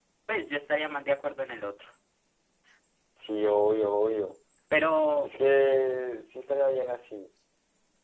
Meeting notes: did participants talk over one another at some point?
No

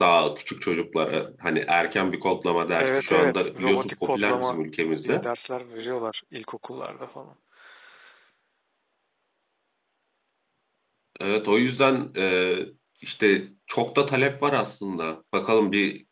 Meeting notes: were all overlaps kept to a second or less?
No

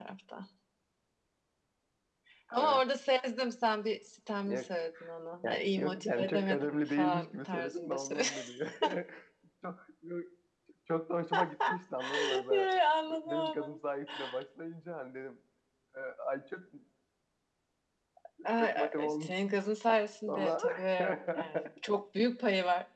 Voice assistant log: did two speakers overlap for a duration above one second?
Yes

